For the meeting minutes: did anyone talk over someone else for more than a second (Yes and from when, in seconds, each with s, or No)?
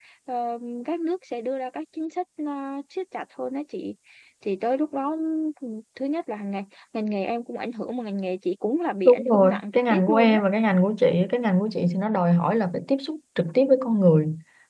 Yes, from 9.0 s